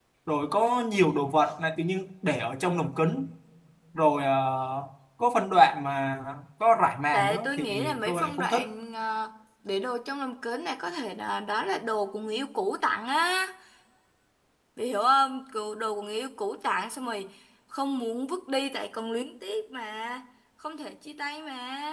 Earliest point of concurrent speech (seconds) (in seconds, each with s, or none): 7.1 s